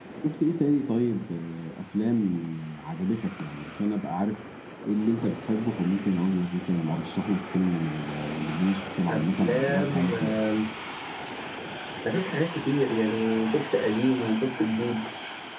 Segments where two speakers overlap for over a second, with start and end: 9.1-10.4

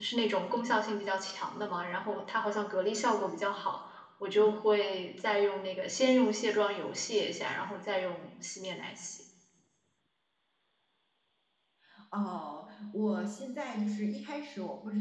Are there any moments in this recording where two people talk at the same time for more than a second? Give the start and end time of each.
none

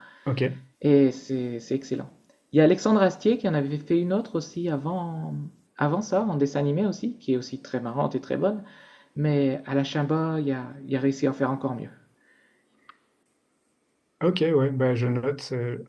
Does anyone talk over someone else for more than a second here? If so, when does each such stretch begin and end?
none

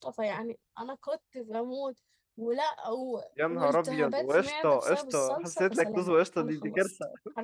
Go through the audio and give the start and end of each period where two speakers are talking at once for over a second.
3.5-6.9

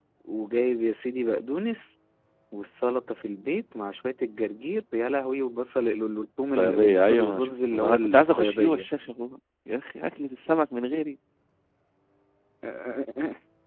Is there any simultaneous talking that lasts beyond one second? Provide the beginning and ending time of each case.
6.6-8.9

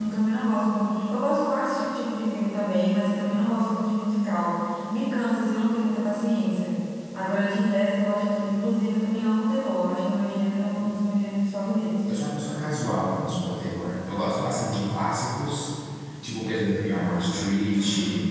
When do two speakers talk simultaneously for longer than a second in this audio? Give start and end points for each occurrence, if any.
none

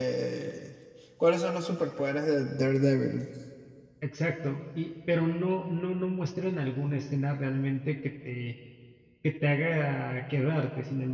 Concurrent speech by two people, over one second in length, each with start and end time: none

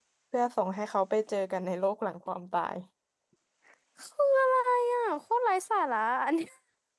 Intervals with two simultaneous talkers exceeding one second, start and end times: none

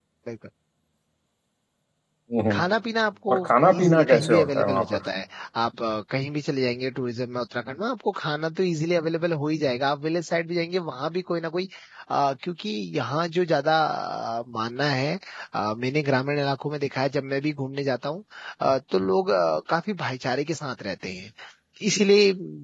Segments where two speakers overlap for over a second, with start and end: 3.3-5.0

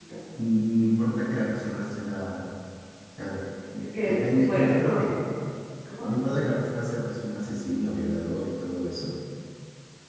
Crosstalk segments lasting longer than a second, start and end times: 3.8-5.0

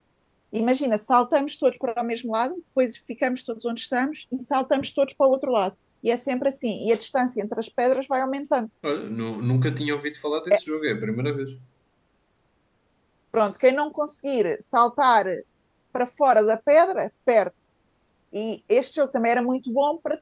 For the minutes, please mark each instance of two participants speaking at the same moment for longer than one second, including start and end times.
none

